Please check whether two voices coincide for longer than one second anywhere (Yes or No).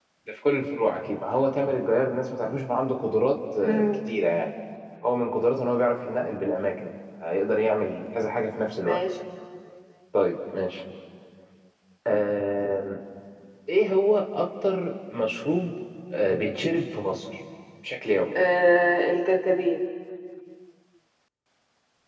No